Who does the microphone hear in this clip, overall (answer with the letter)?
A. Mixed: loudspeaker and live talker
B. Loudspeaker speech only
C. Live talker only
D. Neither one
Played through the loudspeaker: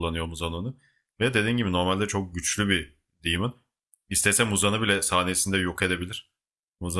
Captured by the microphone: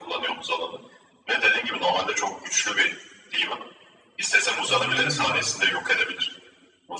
A